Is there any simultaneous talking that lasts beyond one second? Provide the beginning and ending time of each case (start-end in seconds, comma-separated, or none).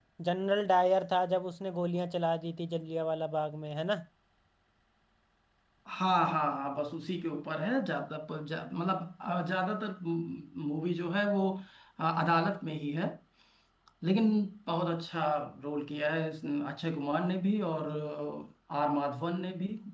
none